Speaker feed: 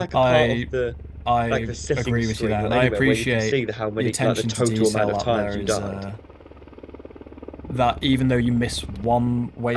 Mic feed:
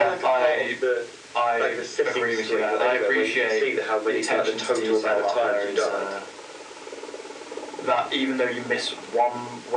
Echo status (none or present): present